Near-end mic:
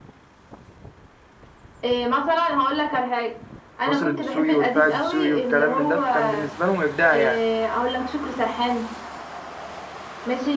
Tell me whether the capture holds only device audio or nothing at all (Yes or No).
No